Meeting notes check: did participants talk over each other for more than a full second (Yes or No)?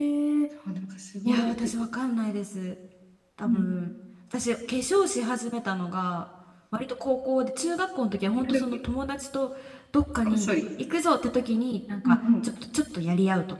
No